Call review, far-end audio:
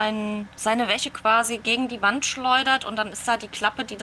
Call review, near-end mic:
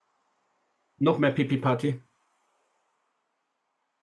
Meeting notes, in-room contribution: present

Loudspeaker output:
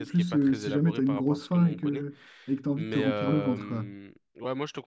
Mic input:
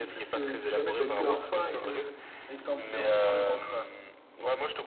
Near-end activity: present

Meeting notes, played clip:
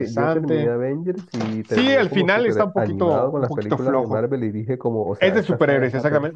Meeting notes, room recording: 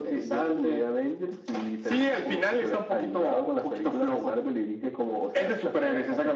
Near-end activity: none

